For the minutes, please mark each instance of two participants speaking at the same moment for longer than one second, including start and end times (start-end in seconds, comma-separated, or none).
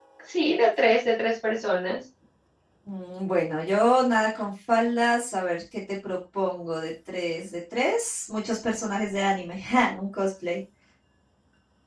none